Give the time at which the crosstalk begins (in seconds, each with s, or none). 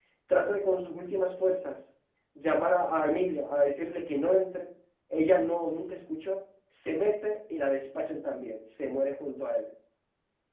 none